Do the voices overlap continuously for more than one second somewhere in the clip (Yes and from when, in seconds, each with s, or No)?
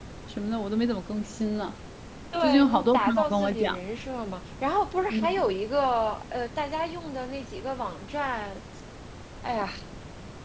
Yes, from 2.4 s